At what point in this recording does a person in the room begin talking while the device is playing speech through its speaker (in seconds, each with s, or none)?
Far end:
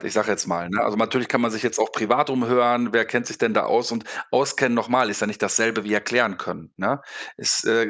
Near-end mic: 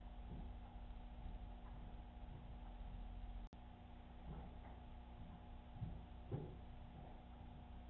none